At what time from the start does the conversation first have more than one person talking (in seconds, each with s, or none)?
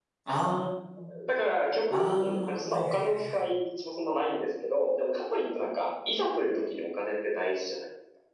1.9 s